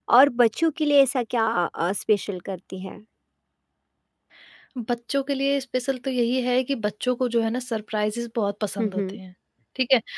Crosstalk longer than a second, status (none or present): none